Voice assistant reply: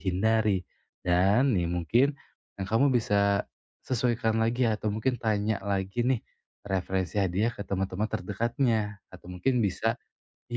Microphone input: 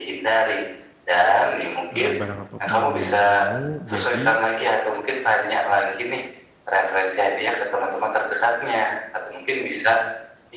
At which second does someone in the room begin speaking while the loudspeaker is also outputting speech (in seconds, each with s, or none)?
1.9 s